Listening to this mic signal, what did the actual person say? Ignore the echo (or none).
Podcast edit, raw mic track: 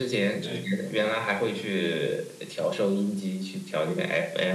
对，